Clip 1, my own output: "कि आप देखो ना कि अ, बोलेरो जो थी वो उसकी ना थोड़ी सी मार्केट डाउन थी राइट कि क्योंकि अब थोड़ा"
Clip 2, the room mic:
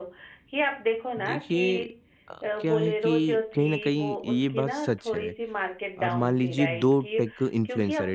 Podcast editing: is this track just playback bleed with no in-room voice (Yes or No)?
No